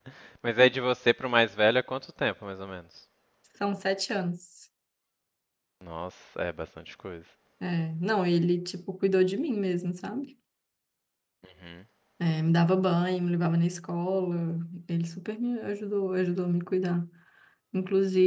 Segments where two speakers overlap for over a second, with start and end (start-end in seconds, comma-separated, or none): none